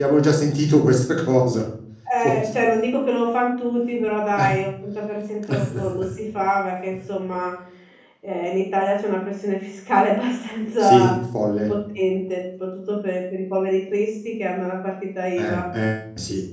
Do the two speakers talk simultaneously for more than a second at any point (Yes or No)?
No